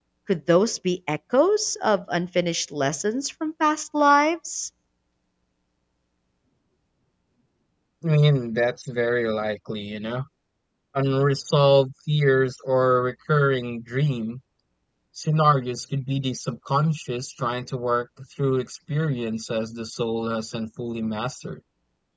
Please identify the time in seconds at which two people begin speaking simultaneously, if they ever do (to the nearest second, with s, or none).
none